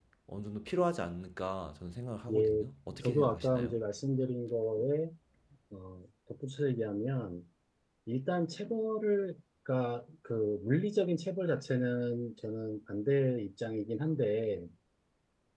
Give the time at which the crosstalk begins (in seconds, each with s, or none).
2.3 s